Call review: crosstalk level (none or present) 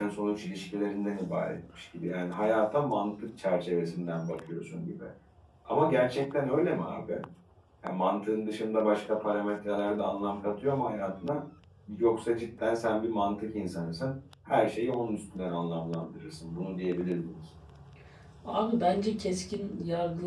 none